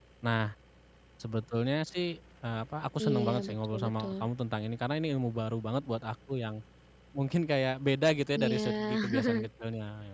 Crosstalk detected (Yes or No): Yes